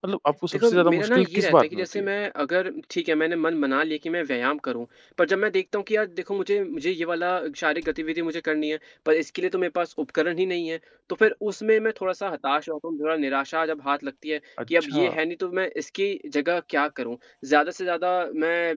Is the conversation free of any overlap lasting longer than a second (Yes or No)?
No